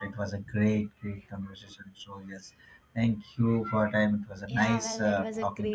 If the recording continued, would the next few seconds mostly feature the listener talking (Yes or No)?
Yes